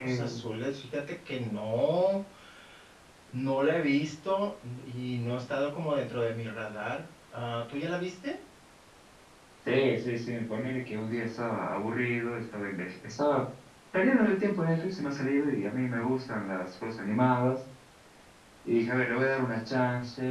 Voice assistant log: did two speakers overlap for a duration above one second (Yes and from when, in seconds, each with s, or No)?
No